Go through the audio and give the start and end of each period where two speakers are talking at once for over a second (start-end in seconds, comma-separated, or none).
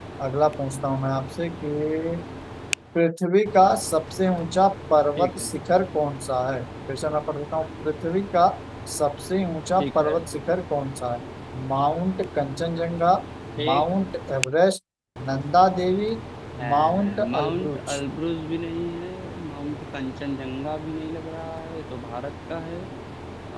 16.7-18.0